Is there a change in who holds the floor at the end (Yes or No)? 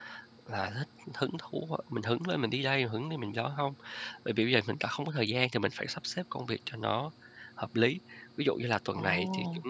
No